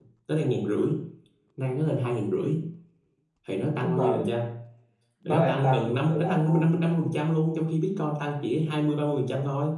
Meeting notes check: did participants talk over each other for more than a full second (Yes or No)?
Yes